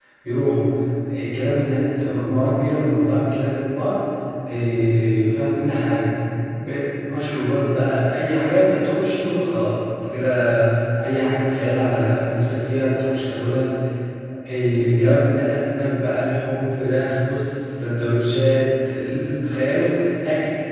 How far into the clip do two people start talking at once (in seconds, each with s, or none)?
none